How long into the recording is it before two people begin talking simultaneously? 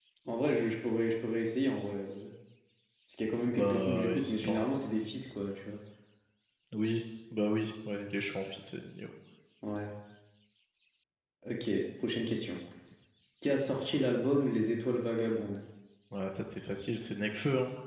3.5 s

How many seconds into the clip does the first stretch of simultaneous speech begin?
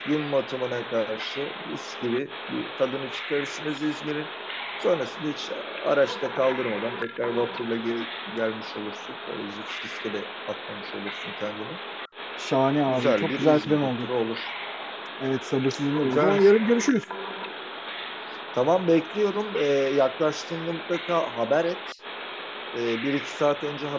12.9 s

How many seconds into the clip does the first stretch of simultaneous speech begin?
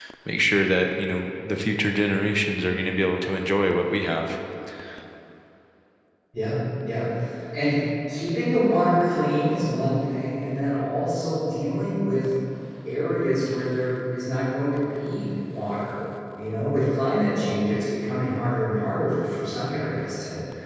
none

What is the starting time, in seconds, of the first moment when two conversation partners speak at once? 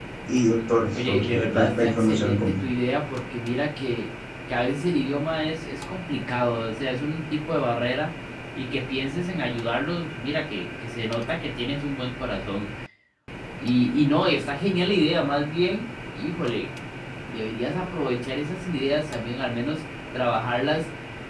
0.9 s

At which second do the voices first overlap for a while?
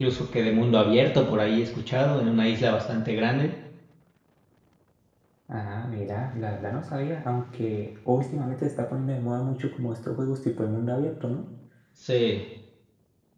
none

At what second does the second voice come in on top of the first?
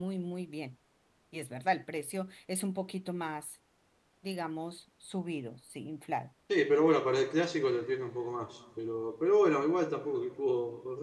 none

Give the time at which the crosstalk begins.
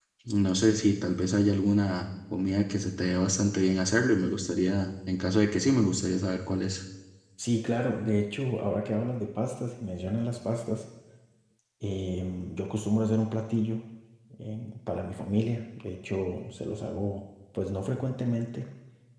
none

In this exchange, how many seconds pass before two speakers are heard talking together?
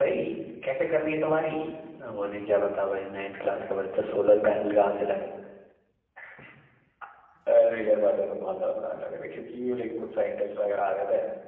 none

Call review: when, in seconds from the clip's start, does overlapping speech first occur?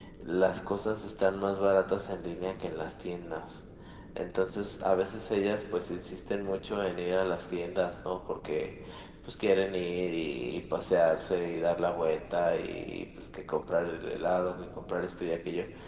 none

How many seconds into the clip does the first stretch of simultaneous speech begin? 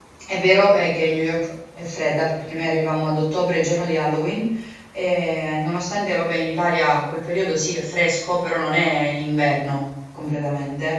none

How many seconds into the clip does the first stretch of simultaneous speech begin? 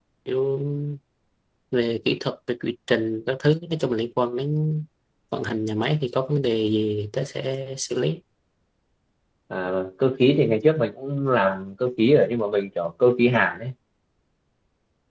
none

